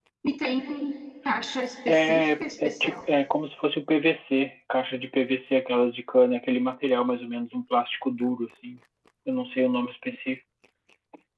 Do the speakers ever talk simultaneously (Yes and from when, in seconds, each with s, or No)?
Yes, from 1.9 s